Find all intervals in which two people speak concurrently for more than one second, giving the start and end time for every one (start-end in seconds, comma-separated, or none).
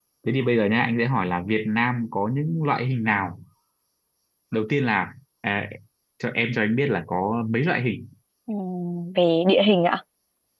none